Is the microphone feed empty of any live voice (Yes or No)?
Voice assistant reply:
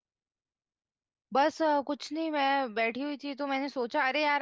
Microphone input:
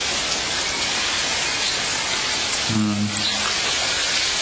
No